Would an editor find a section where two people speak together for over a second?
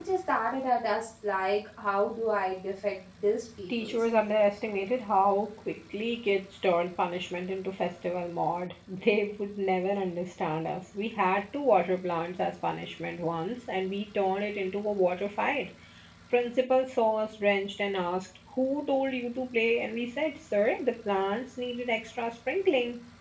No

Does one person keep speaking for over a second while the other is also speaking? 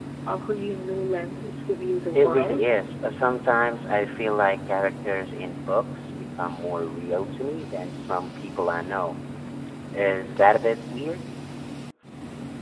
No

